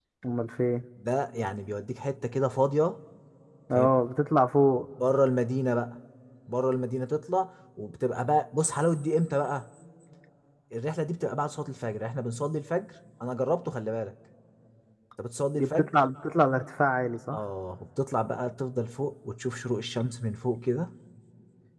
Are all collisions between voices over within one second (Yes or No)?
Yes